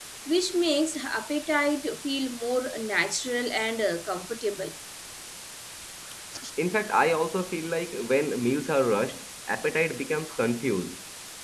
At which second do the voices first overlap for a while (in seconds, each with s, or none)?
none